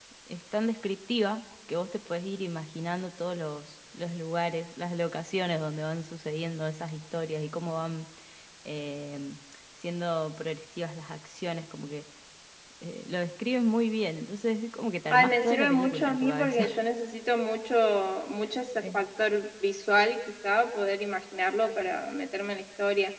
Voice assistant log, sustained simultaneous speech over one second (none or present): present